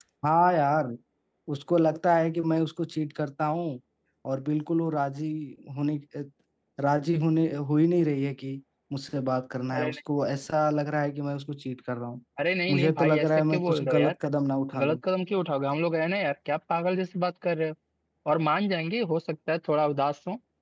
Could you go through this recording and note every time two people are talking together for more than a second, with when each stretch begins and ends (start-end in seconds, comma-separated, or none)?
12.7-14.1